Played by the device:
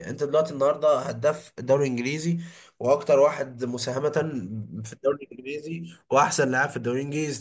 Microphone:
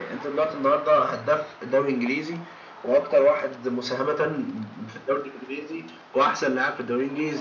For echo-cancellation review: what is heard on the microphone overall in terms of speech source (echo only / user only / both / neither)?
echo only